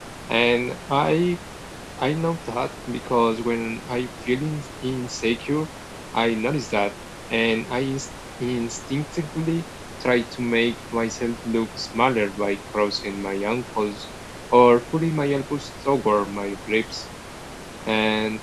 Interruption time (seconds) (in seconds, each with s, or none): none